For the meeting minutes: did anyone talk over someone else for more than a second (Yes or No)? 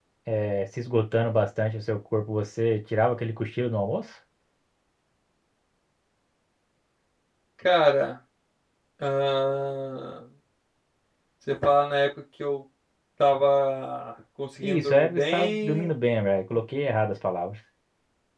Yes